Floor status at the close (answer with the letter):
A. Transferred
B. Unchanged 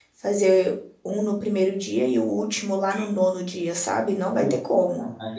A